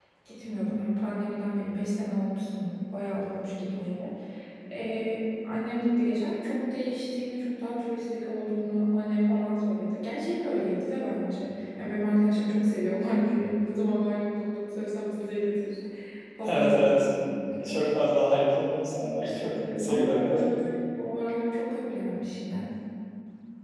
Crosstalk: present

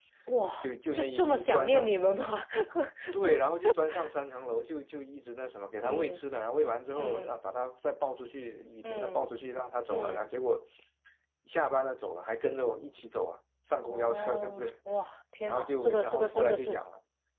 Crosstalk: present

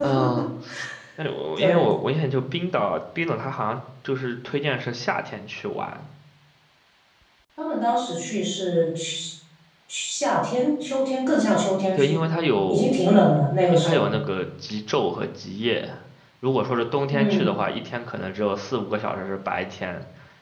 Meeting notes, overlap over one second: none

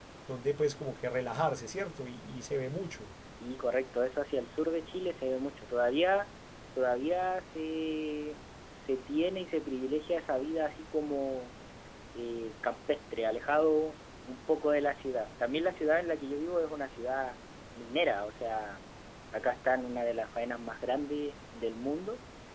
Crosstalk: none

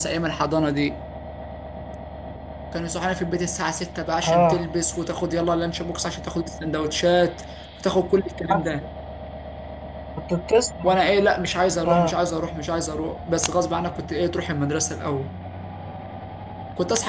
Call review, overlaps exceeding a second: none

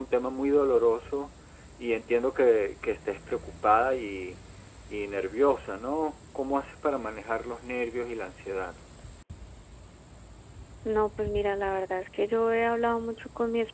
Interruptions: none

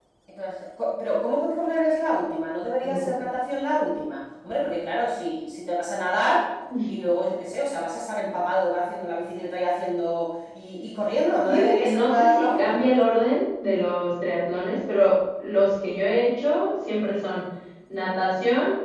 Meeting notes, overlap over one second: present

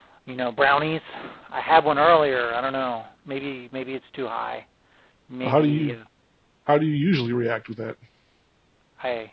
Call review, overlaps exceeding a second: none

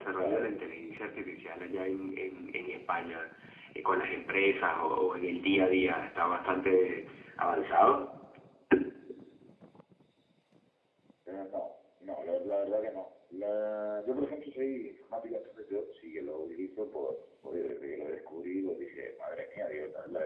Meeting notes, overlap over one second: none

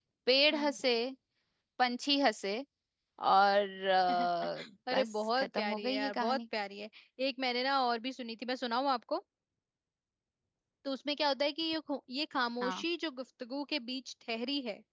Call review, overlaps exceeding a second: present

